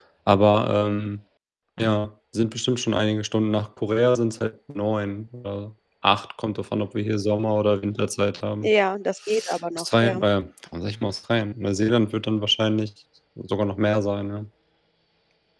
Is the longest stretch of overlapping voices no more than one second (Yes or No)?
Yes